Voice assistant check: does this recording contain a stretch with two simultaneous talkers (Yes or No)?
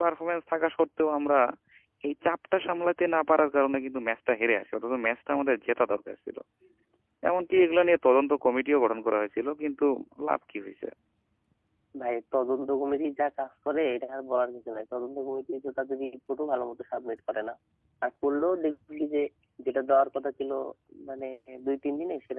No